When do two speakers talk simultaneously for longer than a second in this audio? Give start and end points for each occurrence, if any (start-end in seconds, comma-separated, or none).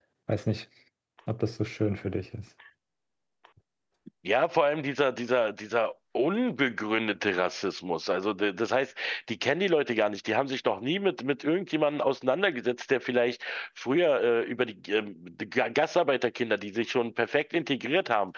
none